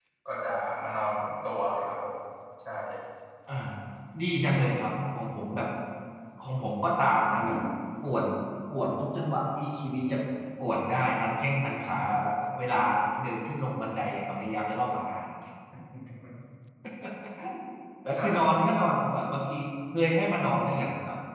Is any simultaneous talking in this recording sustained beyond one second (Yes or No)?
No